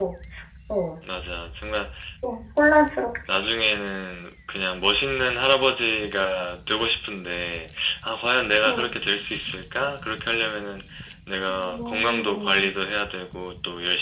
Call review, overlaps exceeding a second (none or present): present